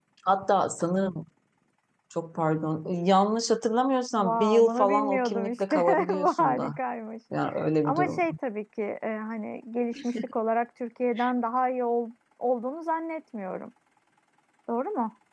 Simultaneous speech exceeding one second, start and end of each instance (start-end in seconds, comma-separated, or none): 4.2-6.7